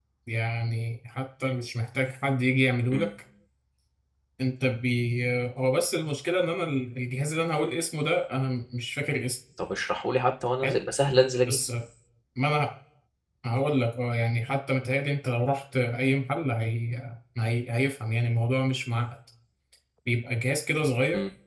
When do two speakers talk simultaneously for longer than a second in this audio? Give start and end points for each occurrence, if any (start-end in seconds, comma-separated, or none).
none